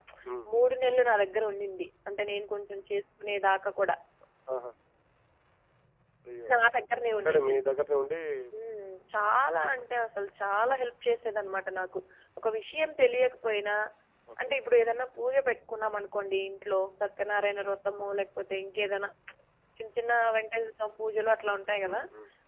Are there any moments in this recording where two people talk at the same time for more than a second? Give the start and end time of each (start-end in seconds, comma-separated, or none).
none